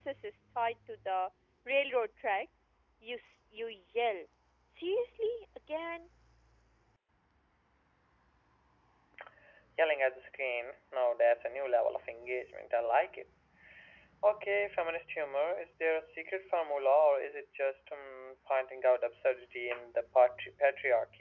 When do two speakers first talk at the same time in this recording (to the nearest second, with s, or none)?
none